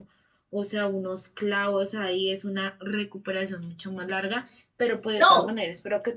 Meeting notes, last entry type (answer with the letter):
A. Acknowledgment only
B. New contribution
A